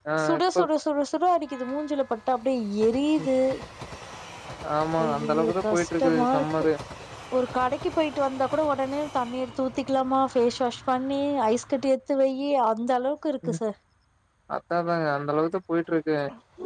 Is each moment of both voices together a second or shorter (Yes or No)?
No